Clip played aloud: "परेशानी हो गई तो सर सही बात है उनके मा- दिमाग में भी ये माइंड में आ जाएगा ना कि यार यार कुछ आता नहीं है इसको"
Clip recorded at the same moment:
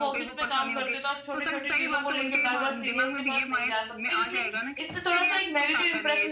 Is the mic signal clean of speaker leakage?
No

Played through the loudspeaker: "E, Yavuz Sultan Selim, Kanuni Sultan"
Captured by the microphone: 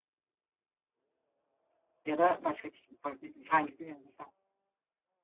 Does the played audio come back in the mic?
No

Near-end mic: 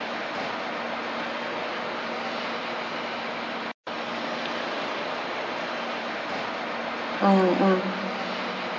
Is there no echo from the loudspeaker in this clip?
Yes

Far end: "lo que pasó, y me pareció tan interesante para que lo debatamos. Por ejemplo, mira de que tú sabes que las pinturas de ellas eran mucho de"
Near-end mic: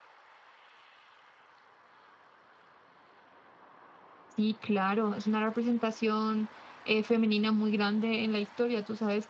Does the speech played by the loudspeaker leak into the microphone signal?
No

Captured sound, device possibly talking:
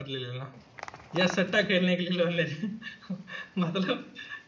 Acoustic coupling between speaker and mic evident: No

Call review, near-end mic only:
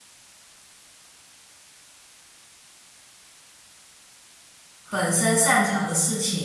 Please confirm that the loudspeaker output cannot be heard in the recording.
Yes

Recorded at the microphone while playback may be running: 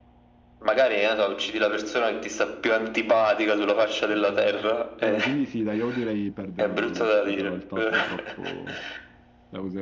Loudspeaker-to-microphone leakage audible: Yes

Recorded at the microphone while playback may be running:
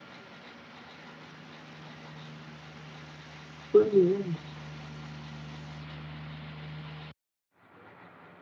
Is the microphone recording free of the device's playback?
Yes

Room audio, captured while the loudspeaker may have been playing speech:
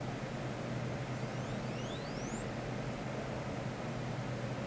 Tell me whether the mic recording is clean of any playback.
Yes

